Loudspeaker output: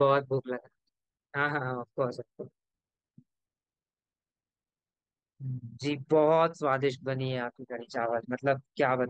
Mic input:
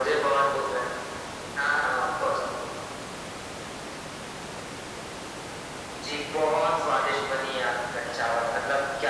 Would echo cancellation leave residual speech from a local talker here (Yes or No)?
No